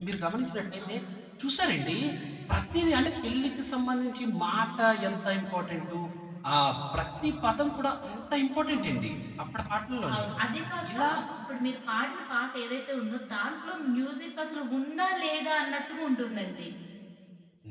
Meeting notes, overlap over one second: none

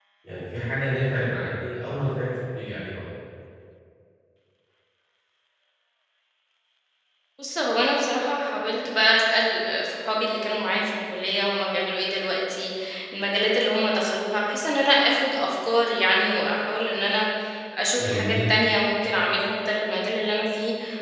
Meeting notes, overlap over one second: none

